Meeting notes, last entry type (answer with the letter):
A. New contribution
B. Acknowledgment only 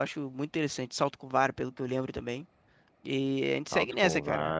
A